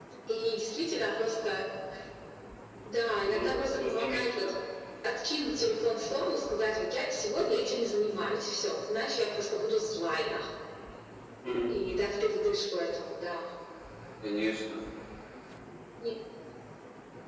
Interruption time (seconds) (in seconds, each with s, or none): 3.2 s